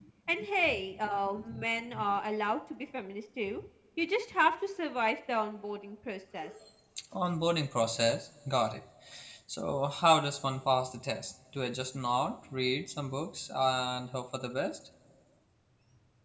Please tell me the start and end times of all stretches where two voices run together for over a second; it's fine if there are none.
none

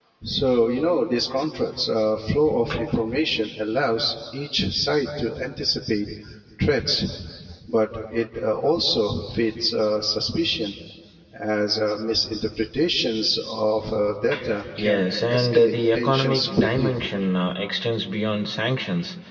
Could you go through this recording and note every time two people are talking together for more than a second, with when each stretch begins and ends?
14.8-16.9

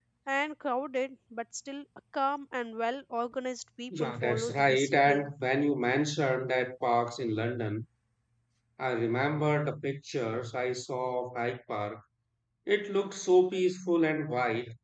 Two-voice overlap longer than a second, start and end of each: 4.0-5.3

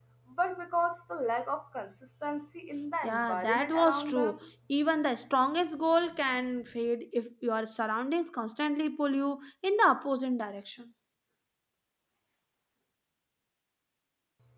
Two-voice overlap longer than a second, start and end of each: 3.0-4.4

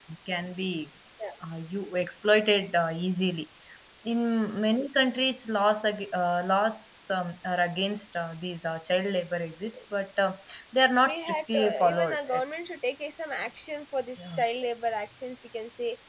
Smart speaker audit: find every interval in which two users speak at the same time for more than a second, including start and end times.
11.0-12.4

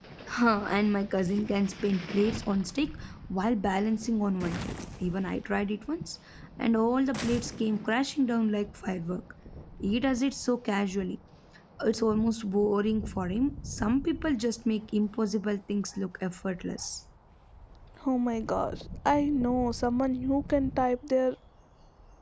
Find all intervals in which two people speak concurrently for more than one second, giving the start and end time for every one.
none

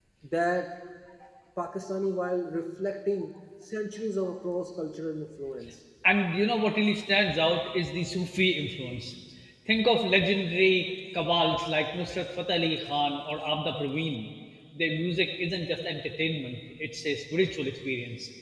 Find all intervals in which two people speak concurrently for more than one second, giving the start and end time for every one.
none

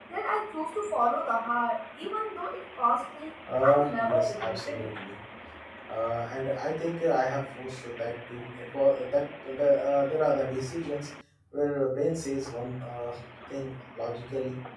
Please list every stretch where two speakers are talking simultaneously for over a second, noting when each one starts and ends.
3.6-4.9

